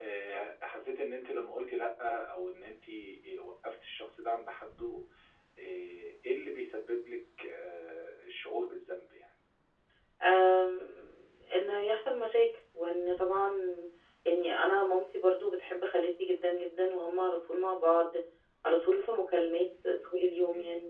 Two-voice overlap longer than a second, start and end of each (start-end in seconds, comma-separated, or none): none